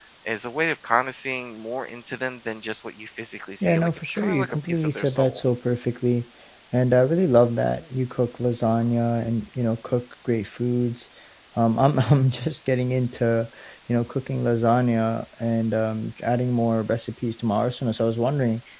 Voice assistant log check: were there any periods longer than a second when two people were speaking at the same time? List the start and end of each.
3.6-5.4

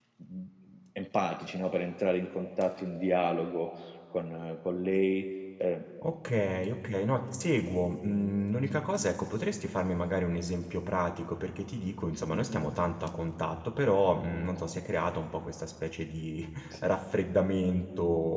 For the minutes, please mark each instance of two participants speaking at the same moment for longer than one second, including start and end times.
none

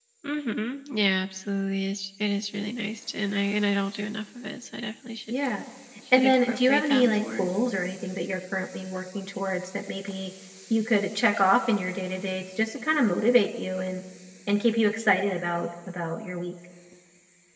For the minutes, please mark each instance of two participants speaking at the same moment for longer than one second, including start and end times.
6.1-7.5

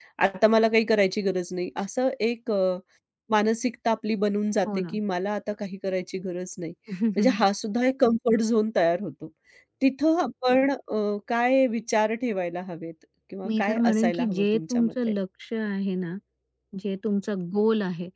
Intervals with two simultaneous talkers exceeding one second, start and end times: 13.4-15.2

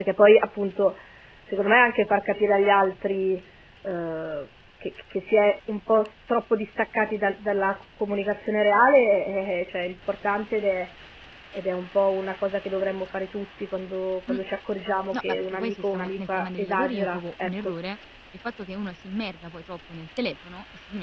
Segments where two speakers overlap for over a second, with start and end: 15.1-17.5

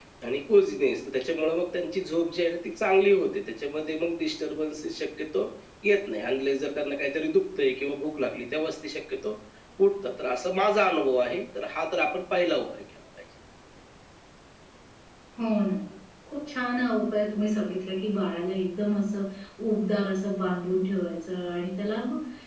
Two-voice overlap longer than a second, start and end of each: none

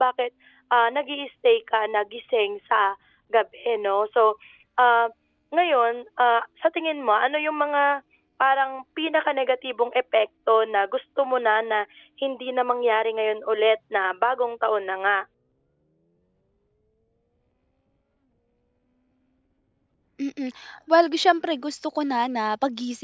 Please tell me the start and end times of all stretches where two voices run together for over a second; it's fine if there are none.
none

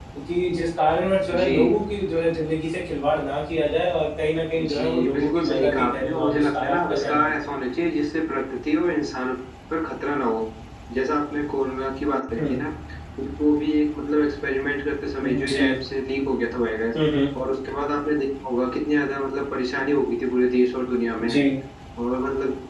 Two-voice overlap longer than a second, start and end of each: 4.6-7.4

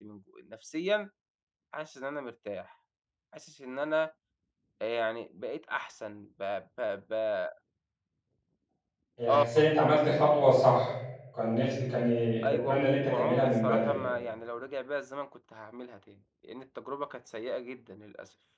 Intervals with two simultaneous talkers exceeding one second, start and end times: 12.4-14.1

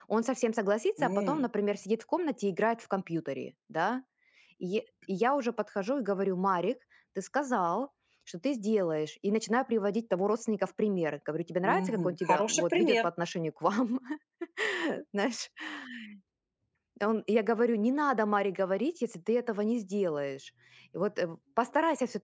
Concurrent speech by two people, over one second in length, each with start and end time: 11.6-13.1

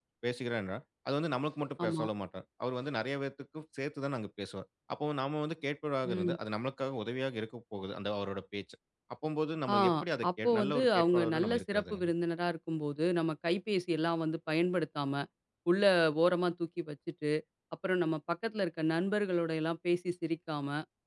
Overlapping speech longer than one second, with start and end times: 10.4-12.0

